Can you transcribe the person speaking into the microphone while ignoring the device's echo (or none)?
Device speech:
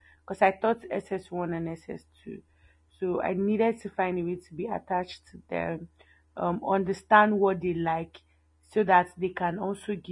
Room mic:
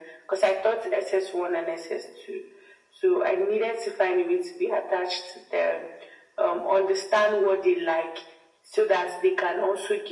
none